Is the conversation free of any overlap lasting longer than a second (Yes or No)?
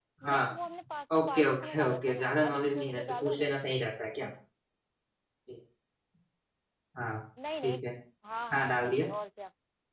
No